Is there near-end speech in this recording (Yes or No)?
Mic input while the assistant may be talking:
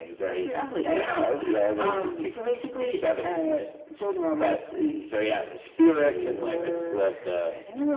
No